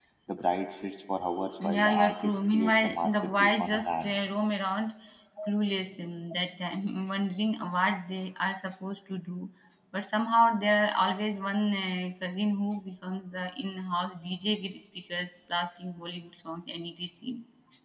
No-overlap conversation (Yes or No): No